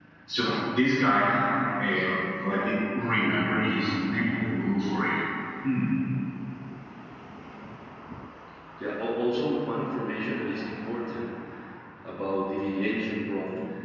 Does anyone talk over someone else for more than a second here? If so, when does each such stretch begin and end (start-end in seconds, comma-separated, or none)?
none